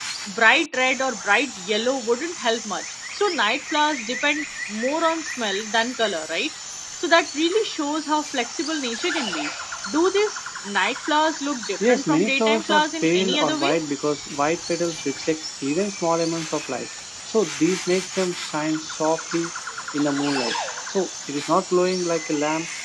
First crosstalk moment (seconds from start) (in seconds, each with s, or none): 11.8 s